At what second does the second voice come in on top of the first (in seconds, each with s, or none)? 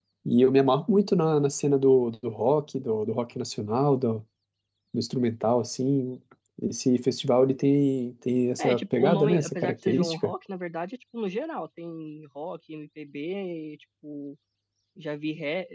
8.6 s